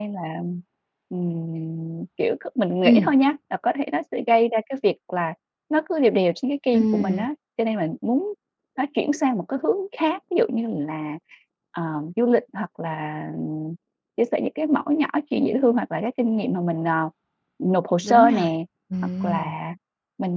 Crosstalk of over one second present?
No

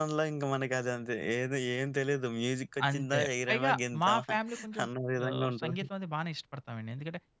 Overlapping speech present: Yes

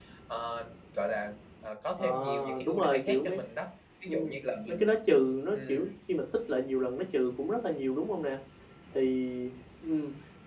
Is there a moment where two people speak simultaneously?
Yes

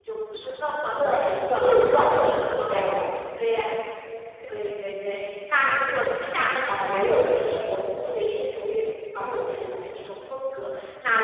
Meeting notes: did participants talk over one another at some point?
Yes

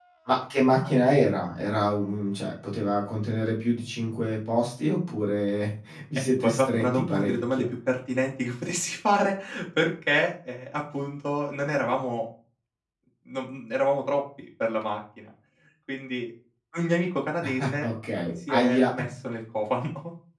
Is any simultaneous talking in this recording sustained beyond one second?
Yes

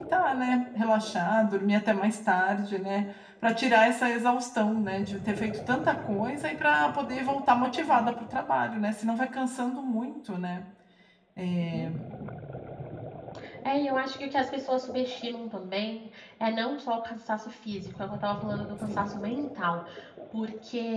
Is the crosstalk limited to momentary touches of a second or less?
Yes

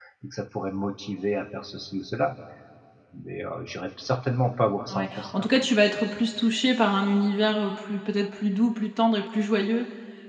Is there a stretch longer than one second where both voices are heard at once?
No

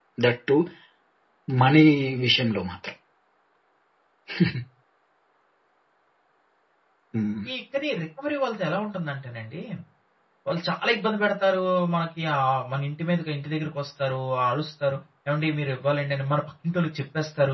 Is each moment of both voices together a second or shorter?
Yes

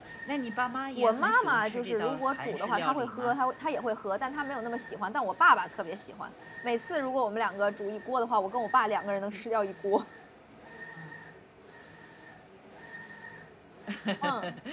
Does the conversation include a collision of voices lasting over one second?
Yes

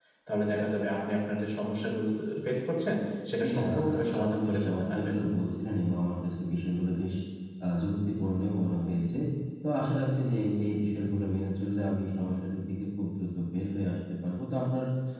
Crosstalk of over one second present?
Yes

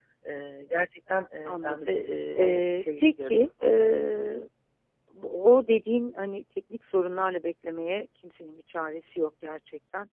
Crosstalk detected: Yes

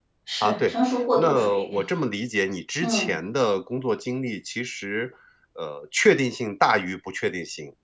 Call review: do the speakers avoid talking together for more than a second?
No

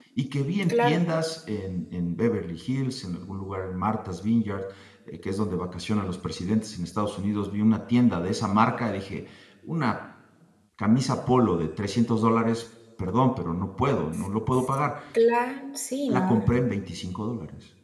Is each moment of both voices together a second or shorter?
Yes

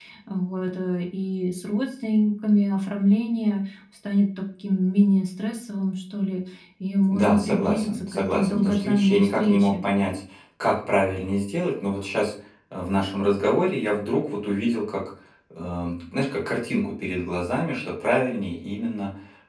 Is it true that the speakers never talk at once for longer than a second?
No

